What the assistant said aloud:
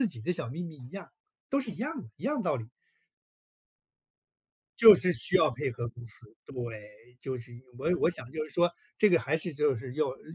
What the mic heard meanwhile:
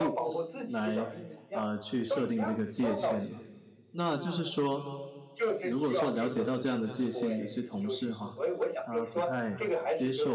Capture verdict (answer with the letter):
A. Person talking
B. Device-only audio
A